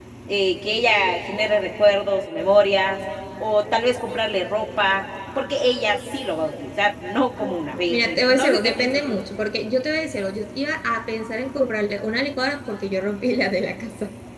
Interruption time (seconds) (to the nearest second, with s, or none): 8 s